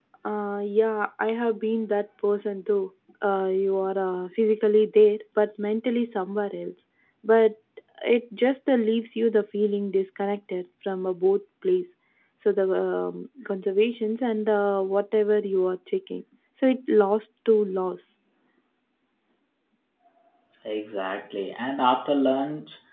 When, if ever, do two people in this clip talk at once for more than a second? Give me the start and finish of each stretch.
none

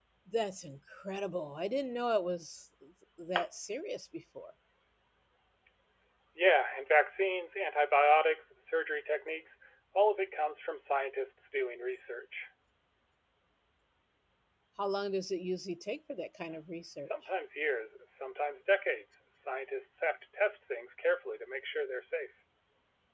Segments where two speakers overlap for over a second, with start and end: none

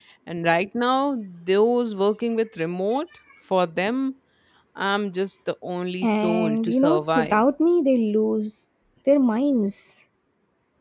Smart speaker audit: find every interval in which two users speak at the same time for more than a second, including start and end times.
6.0-7.4

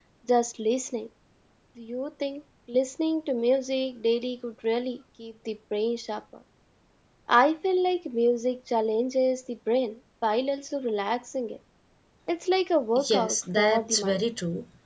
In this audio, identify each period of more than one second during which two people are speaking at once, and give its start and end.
13.0-14.2

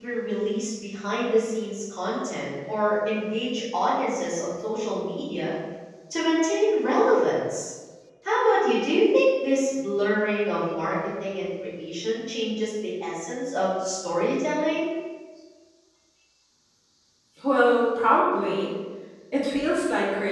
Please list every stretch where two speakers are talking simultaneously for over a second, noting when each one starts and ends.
none

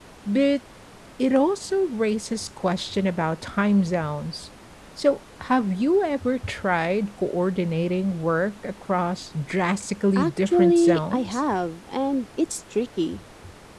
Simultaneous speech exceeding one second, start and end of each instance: 10.2-11.4

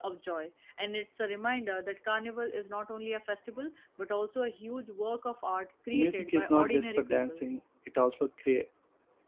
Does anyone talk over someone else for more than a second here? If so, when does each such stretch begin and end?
5.9-7.4

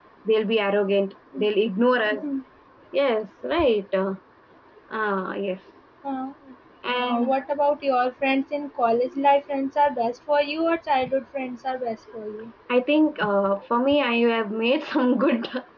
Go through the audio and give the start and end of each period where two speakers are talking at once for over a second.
none

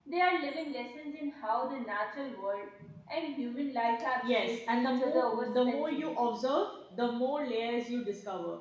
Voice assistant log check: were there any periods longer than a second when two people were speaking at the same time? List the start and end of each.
4.2-6.2

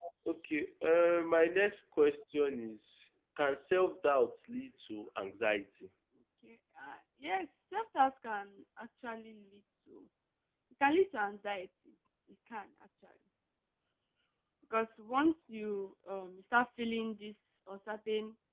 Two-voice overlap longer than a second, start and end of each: none

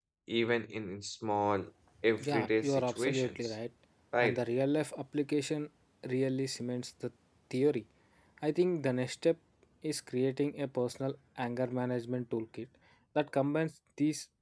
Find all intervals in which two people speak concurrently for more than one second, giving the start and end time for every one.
2.3-3.5

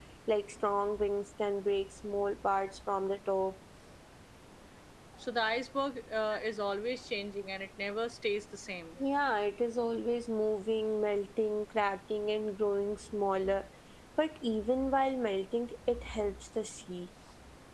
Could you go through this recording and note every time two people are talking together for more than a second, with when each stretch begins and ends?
none

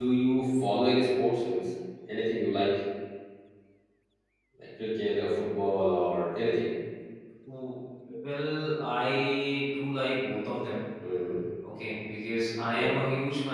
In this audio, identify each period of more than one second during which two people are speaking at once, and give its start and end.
none

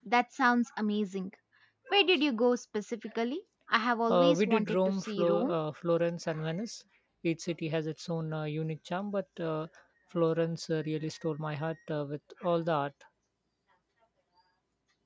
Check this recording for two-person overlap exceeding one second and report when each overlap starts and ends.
4.1-5.5

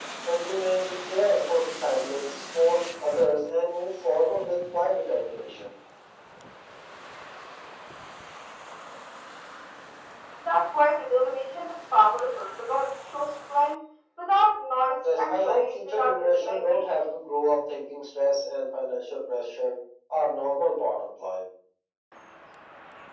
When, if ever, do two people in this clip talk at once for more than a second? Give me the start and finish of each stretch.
15.2-17.0

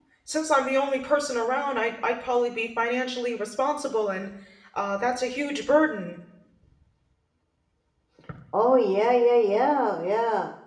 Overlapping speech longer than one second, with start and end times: none

